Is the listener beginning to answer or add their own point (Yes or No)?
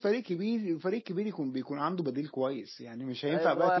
Yes